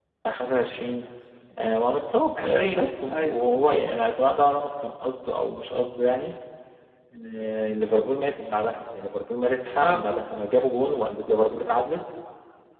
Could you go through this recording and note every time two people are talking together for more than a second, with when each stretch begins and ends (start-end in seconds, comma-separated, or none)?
2.4-3.8